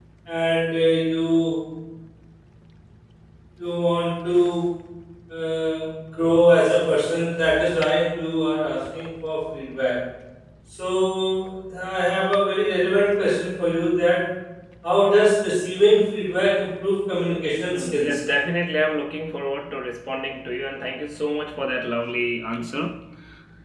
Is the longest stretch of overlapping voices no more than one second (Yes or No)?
Yes